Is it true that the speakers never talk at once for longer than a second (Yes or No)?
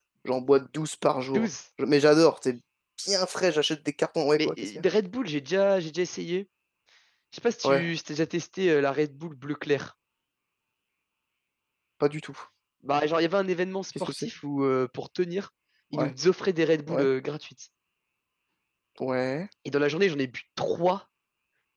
Yes